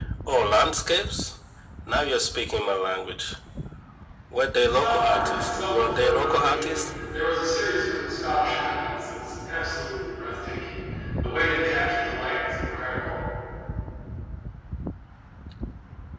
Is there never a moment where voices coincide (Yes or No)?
No